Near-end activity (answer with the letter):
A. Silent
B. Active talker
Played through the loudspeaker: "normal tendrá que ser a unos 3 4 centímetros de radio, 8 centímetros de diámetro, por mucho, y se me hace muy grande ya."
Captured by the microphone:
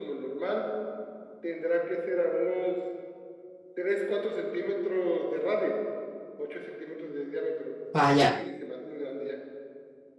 B